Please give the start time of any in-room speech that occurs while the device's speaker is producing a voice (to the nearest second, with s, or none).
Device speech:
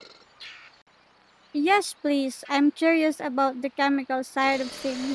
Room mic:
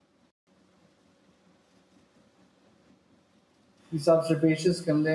4 s